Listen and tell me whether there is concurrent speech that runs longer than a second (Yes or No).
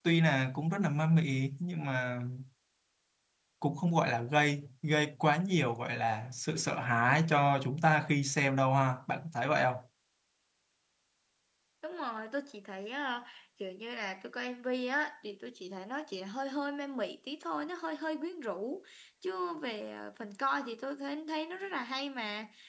No